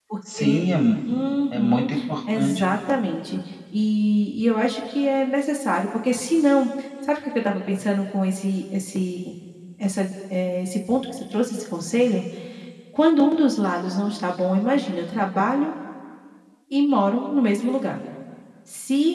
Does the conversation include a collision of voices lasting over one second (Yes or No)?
No